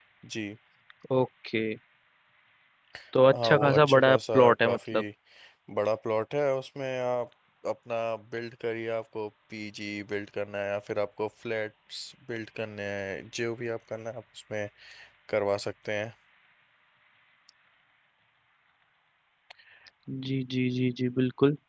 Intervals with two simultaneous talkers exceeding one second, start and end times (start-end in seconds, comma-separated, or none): 3.3-4.8